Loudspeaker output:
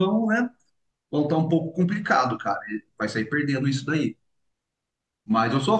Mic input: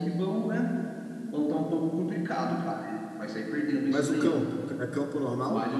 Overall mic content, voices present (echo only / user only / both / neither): both